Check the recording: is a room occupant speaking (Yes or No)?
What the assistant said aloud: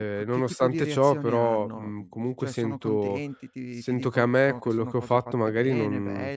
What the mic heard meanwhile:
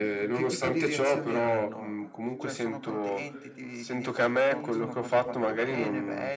Yes